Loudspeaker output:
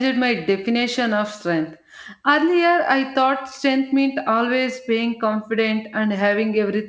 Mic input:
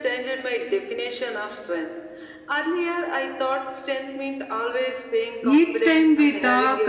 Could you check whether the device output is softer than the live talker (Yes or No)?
Yes